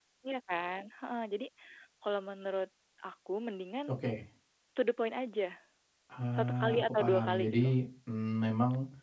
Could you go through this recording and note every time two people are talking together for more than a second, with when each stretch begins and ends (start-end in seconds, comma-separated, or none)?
6.3-7.7